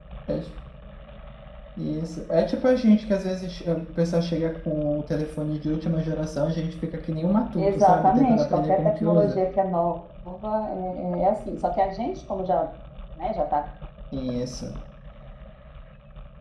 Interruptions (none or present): present